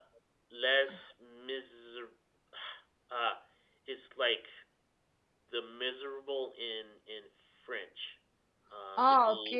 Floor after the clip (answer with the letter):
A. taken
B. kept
A